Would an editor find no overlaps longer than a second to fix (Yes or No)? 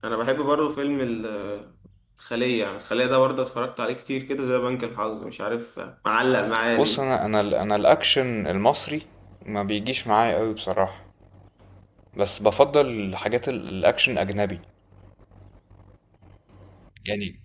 Yes